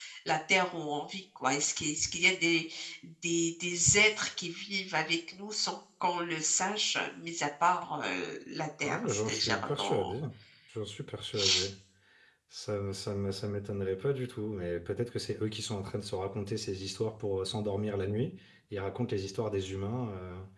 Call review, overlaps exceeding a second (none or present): present